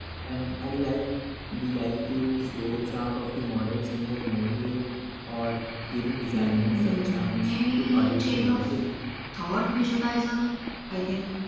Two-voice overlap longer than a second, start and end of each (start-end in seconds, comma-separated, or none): 6.3-8.6